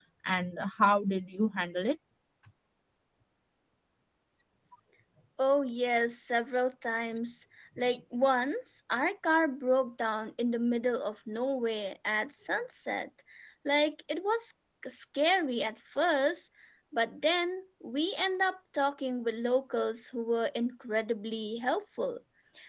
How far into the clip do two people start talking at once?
none

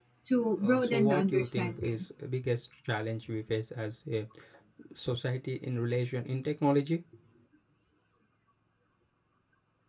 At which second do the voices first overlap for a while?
1 s

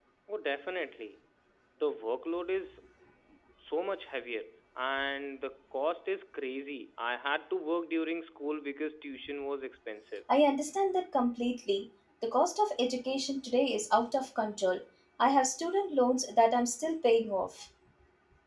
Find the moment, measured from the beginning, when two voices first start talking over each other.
none

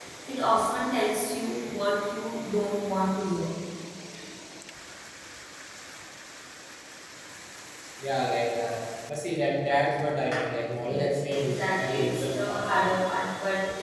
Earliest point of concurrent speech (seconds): 11 s

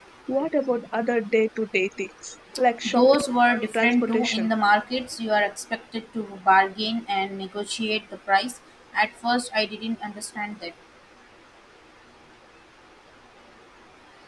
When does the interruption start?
3 s

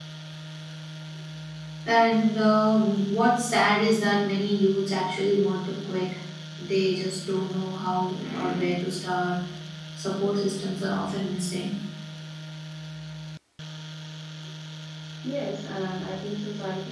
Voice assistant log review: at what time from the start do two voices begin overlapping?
none

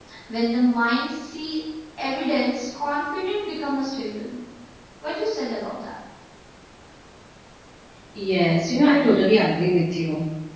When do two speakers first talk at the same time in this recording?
none

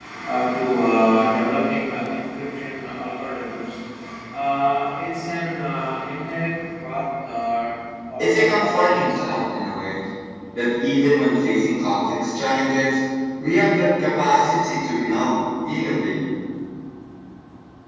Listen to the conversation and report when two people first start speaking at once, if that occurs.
8 s

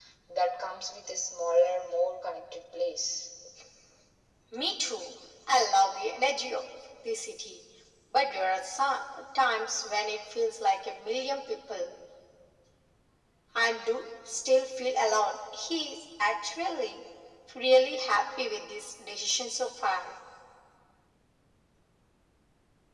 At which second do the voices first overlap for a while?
none

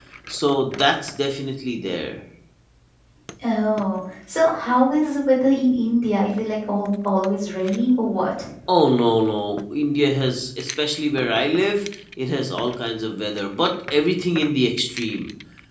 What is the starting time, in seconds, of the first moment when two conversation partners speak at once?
none

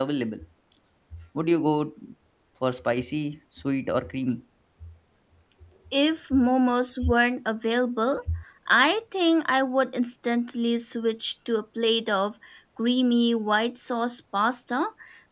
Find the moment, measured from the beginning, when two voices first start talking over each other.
none

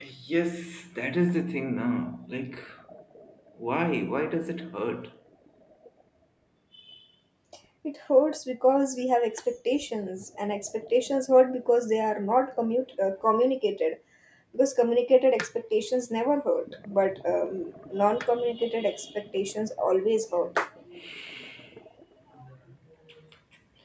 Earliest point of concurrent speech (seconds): none

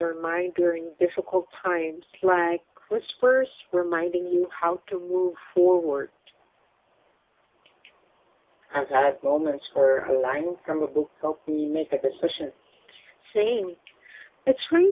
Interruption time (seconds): none

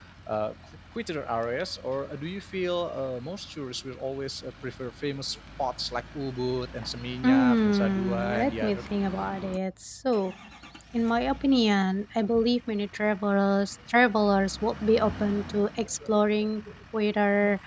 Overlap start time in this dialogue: 7 s

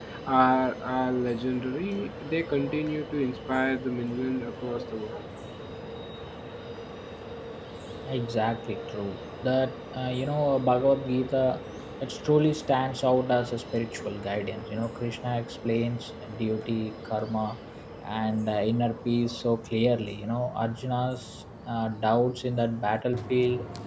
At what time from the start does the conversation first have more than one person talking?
none

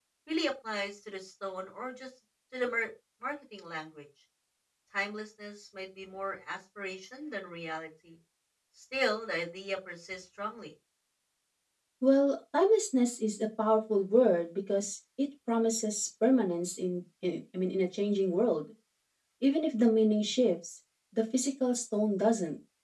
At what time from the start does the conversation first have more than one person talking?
none

